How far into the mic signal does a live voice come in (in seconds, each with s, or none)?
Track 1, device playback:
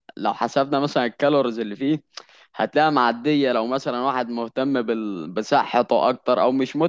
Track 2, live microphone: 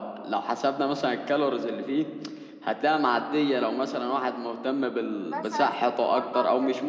5.2 s